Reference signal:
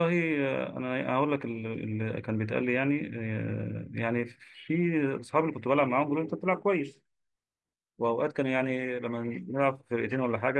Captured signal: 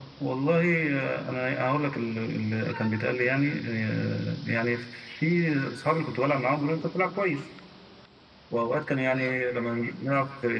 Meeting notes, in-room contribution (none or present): none